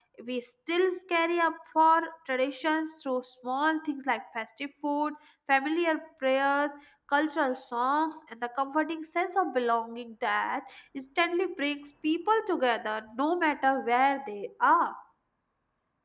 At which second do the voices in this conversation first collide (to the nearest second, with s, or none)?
none